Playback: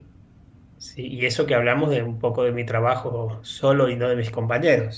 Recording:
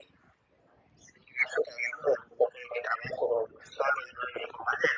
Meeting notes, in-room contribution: none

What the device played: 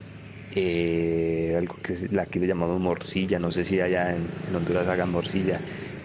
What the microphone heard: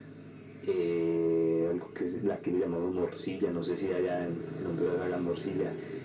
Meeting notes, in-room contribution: none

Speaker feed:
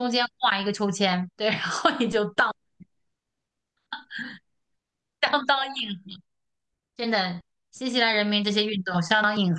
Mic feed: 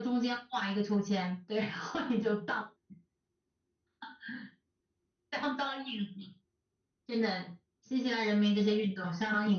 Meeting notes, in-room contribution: none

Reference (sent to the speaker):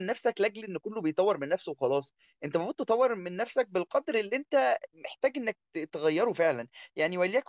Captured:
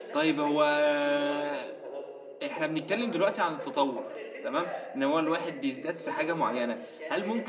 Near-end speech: present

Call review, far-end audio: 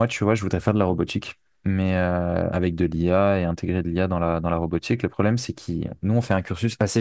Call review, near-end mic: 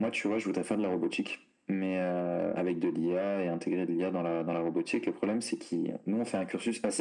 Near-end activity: none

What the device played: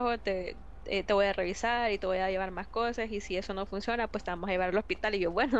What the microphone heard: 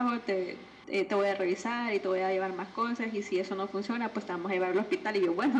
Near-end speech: none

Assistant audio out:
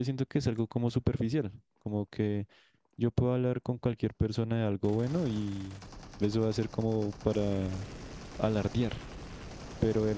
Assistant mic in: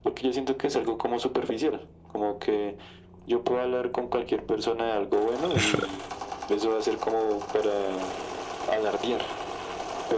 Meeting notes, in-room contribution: present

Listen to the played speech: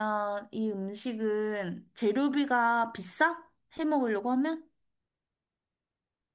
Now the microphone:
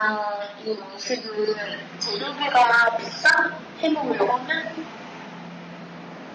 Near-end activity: none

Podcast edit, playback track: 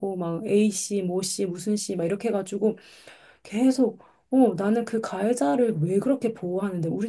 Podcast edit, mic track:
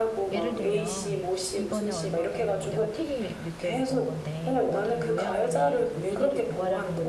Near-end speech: present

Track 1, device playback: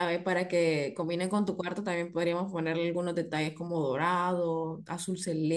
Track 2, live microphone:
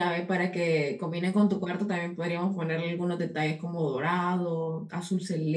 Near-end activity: none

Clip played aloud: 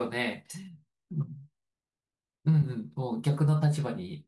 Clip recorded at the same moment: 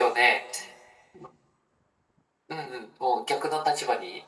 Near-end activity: none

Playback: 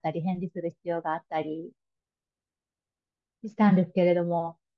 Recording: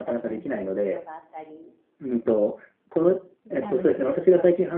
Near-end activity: present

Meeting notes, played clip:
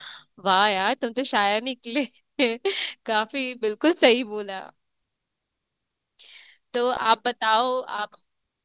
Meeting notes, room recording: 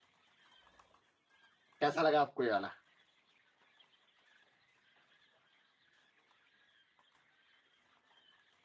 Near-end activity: present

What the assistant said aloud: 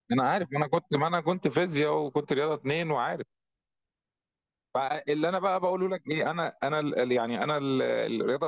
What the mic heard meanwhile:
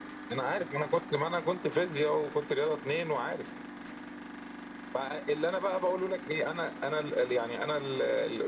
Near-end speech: none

